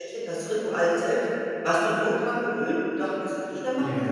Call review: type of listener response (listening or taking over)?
taking over